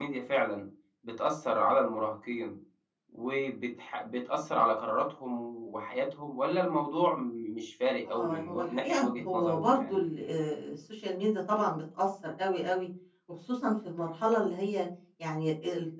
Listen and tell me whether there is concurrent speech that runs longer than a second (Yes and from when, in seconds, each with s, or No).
Yes, from 8.0 s